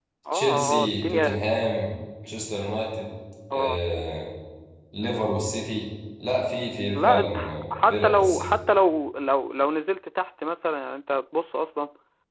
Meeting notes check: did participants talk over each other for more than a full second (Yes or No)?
Yes